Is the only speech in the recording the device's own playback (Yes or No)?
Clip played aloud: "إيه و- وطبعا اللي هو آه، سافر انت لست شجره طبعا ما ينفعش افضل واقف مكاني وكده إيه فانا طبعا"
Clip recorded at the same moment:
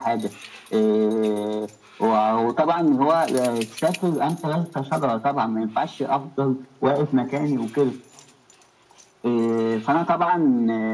Yes